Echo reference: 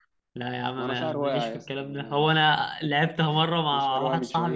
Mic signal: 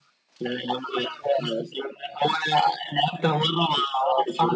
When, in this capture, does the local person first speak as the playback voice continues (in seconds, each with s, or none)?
none